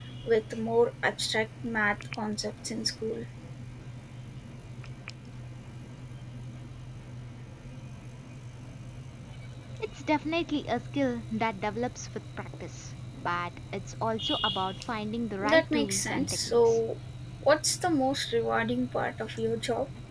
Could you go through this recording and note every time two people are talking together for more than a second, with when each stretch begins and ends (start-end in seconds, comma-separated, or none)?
15.4-16.8